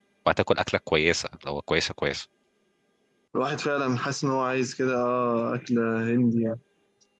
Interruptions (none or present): none